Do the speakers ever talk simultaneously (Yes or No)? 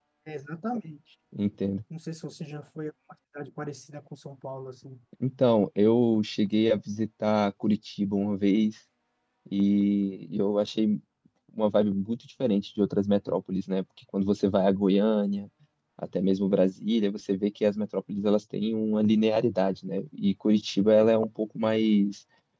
No